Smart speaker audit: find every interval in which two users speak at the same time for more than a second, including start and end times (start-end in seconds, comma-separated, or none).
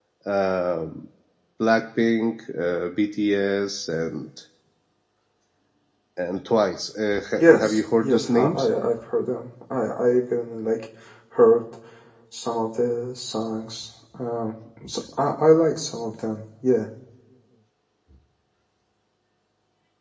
7.4-8.7